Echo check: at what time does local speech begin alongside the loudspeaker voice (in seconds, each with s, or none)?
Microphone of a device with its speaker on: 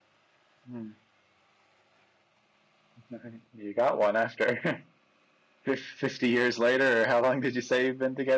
none